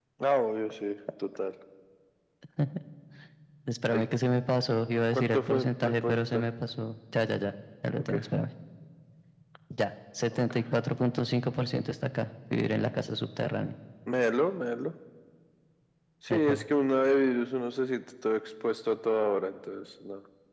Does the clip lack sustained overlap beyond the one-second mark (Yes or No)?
No